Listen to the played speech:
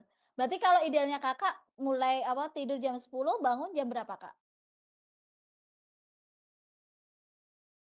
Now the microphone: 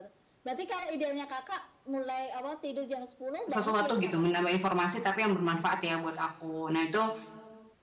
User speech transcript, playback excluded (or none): sesuatu gitu, menambah informasi, tapi yang bermanfaat ya buat aku. Nah, itu